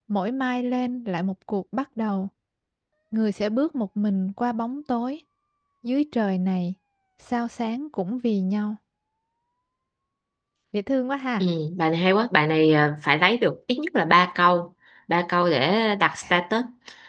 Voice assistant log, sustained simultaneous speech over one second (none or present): none